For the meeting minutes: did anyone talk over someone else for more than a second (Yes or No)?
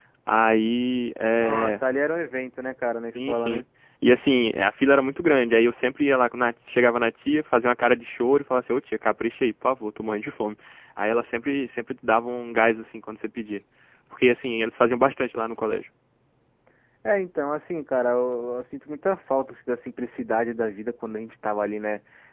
No